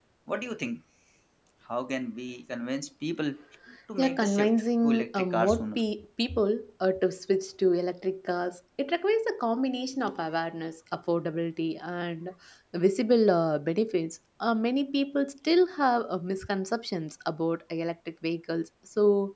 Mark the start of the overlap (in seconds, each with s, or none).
4.0 s